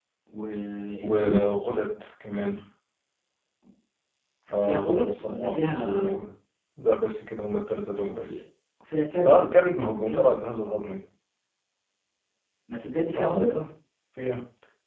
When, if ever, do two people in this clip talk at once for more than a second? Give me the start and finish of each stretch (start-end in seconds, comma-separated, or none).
4.6-6.1